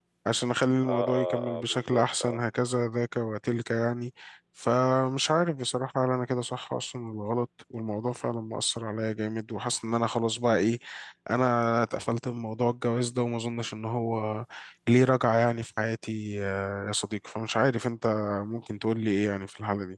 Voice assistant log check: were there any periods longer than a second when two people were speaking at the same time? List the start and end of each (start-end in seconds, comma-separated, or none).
0.8-2.4